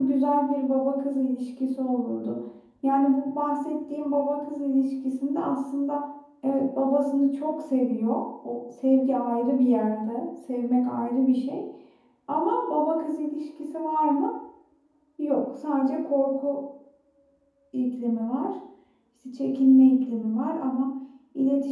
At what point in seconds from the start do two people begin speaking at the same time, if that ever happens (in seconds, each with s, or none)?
none